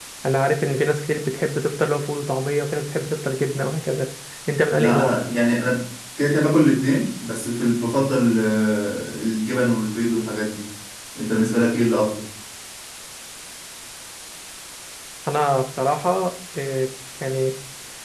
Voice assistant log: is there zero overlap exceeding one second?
Yes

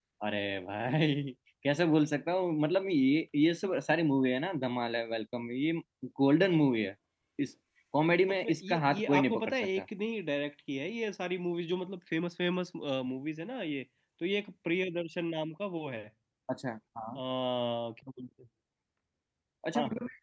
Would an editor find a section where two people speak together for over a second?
Yes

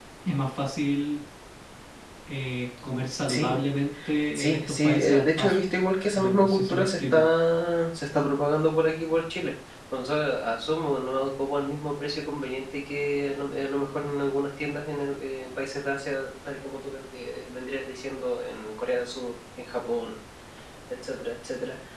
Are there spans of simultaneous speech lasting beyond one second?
Yes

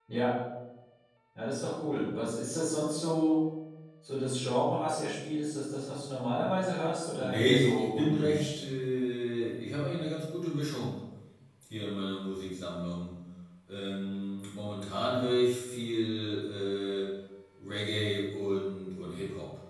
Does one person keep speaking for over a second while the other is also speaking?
Yes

